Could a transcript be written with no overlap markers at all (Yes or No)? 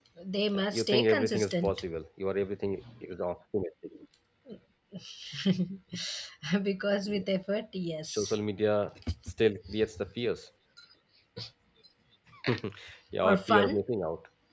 No